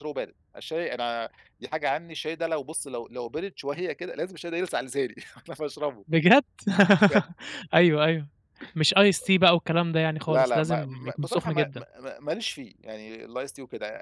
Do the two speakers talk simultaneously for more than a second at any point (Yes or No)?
Yes